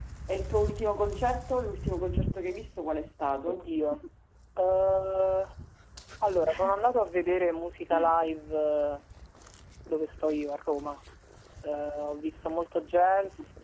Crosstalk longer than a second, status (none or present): none